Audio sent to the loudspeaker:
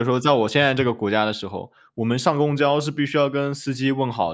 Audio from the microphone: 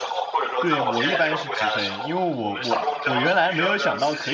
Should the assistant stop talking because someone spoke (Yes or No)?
Yes